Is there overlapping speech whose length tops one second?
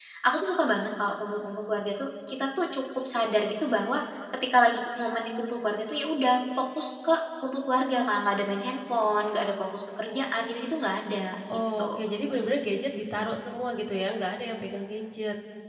No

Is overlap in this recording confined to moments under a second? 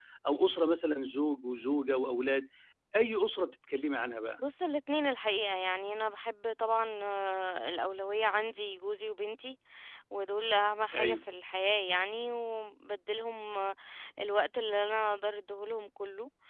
Yes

